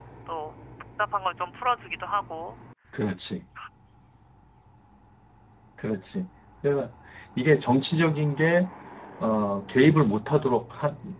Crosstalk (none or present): none